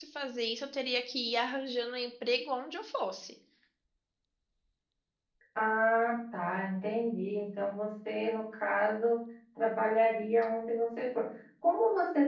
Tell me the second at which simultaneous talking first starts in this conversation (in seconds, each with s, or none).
none